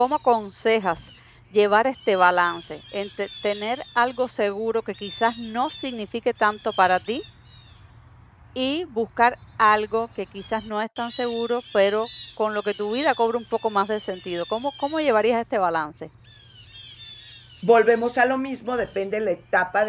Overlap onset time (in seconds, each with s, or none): none